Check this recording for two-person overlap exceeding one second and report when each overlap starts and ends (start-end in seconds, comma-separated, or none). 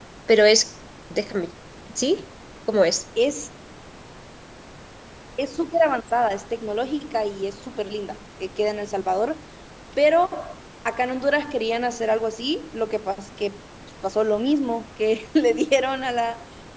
none